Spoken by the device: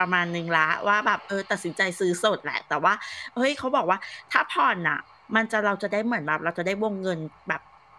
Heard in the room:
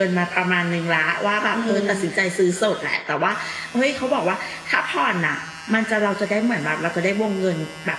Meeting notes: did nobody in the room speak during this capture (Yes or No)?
No